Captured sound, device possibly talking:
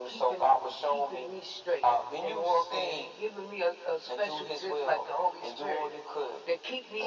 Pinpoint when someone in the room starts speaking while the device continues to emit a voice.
none

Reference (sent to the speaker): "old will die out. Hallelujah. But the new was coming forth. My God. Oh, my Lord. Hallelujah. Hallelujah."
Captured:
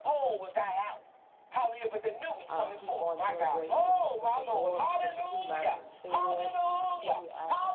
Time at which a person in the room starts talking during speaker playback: 2 s

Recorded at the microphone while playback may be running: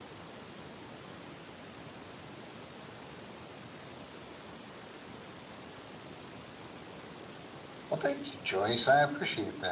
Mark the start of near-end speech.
8 s

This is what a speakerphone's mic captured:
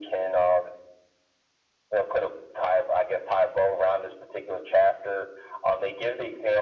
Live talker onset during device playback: none

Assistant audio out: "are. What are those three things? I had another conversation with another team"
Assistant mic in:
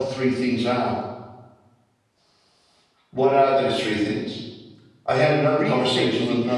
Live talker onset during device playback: 5 s

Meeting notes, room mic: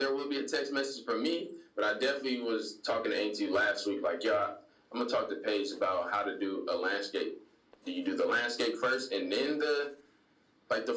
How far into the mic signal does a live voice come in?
none

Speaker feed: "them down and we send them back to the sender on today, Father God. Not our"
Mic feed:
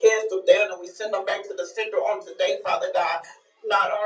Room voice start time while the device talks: none

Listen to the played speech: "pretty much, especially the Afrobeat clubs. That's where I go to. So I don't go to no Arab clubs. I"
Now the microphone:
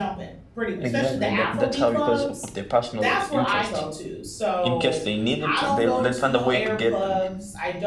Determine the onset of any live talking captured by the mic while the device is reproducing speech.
1 s

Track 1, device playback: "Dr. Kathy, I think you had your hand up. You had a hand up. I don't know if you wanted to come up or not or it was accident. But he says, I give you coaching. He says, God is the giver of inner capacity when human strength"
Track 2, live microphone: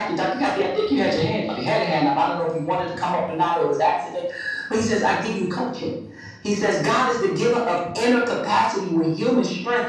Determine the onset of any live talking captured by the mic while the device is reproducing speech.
none

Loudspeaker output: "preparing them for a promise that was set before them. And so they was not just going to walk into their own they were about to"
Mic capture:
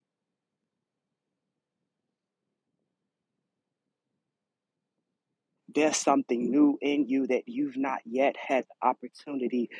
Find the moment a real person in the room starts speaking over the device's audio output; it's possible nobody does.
6 s

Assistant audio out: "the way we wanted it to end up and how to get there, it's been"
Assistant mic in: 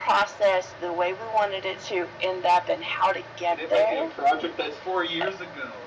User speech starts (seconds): 3 s

